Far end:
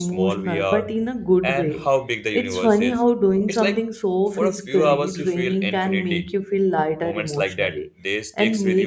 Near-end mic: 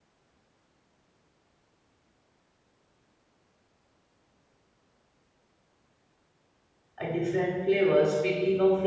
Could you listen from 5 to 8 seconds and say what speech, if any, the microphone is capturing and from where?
user only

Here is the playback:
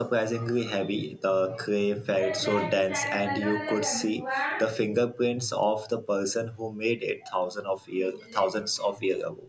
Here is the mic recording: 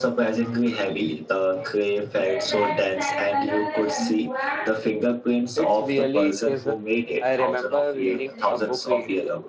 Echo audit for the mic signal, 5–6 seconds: both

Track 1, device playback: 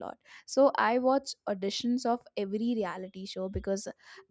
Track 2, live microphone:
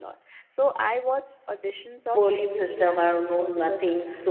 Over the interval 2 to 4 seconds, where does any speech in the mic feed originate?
both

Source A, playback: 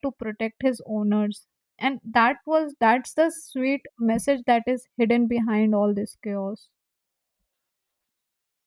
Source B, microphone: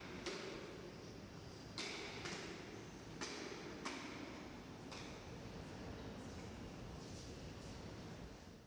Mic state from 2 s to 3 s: neither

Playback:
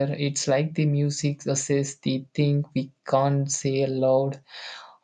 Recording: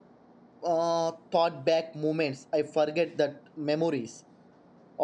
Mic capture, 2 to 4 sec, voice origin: user only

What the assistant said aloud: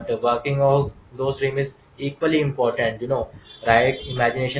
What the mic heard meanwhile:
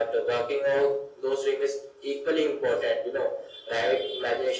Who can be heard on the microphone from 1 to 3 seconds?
echo only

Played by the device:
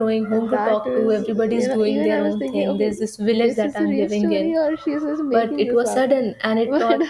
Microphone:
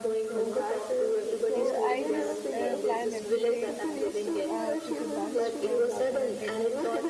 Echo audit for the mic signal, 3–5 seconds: both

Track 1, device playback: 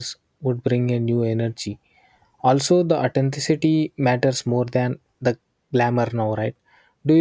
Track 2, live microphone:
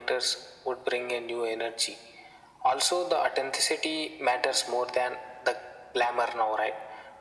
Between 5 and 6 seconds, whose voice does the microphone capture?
echo only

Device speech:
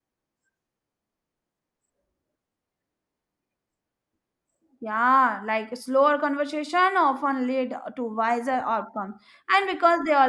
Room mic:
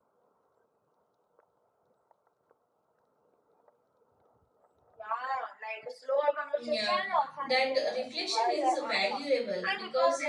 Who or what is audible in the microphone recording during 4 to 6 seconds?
echo only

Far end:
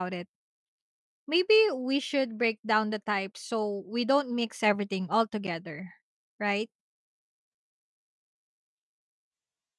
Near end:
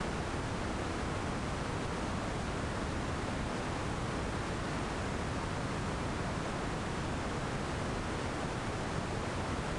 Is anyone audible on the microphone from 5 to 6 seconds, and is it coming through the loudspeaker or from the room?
neither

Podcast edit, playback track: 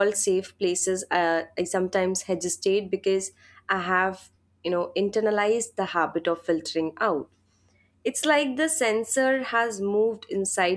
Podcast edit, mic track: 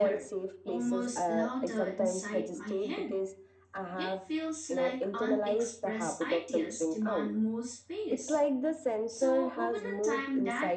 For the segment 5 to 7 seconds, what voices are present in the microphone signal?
both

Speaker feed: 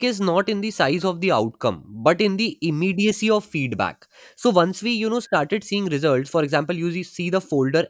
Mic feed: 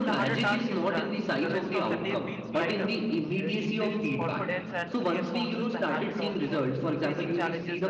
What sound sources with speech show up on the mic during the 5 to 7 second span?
both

